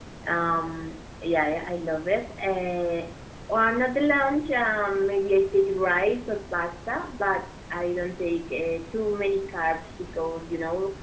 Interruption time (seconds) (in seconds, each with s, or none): none